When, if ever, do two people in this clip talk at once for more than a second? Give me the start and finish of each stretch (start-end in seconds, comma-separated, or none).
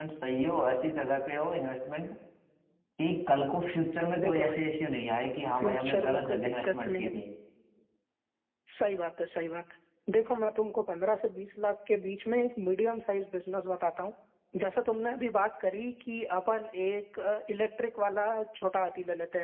5.6-7.2